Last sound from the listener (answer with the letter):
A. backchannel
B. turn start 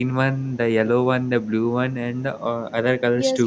B